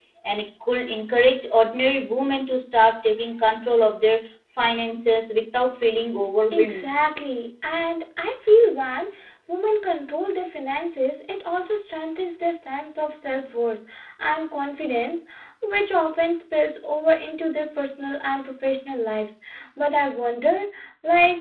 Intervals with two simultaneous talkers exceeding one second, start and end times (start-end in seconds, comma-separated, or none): none